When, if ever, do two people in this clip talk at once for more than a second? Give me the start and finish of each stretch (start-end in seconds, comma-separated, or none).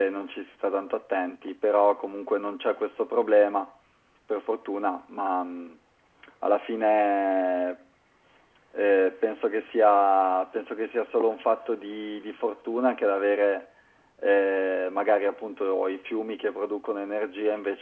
none